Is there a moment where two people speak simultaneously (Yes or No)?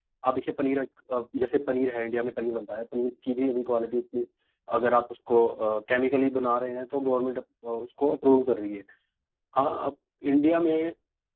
No